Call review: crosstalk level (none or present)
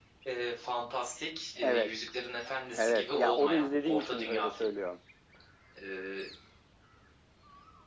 present